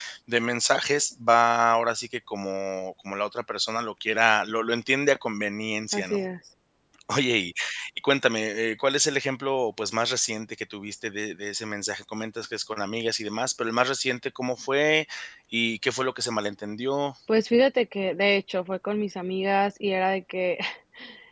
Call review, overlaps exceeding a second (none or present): none